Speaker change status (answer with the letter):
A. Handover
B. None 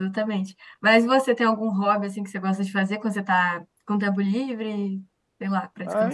A